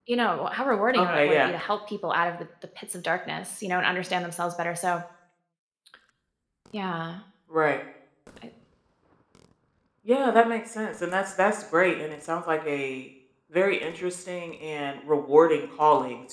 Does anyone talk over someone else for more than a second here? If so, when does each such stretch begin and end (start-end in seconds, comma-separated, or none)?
none